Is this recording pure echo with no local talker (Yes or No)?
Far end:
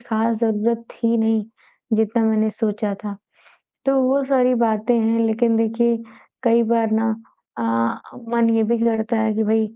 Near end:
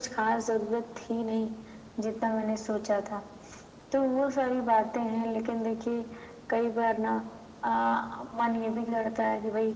Yes